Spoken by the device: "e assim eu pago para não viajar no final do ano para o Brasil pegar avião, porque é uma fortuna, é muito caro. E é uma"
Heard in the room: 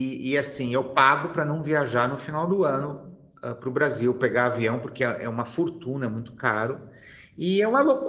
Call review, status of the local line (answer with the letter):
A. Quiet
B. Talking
A